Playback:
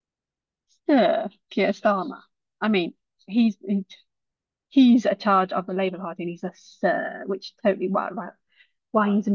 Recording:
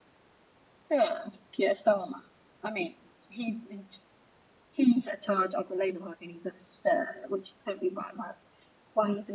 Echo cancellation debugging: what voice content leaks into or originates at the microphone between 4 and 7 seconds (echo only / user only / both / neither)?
echo only